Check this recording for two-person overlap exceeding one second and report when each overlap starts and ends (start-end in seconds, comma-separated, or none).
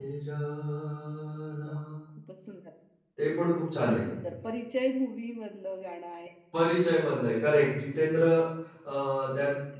none